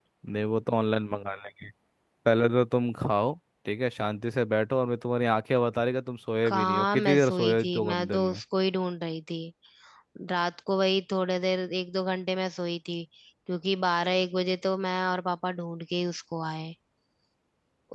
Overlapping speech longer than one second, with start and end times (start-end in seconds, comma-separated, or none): 6.4-8.4